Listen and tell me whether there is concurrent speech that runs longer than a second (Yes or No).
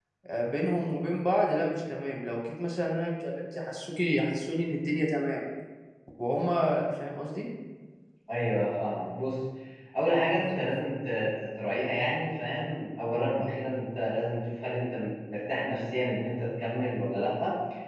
No